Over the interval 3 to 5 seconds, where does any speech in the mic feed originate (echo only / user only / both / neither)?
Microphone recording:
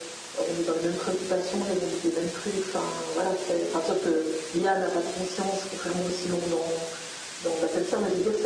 echo only